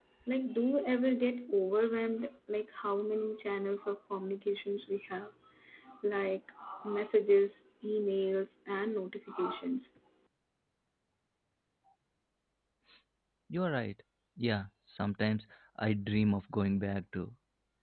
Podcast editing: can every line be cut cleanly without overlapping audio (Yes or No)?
Yes